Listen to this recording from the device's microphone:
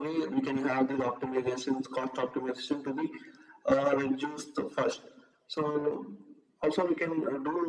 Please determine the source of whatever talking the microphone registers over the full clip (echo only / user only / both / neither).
echo only